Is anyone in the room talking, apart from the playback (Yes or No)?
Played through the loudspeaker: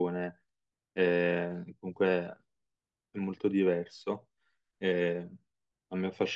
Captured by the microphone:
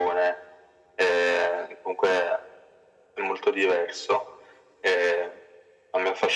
No